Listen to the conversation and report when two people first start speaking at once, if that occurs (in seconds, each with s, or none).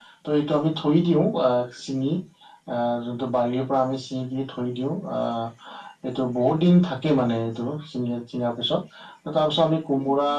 none